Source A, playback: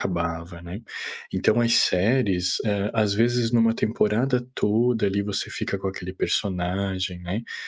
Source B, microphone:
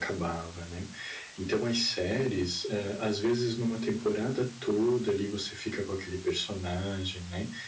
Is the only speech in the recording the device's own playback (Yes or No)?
Yes